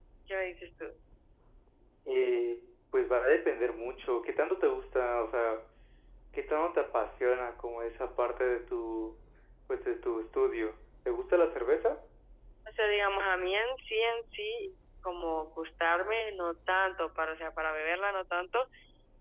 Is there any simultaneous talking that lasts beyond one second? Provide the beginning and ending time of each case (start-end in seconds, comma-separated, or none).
none